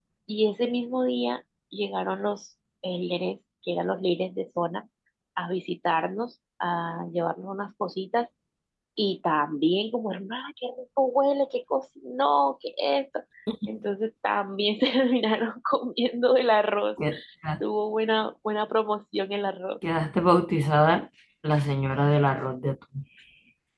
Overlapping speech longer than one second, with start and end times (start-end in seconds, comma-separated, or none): none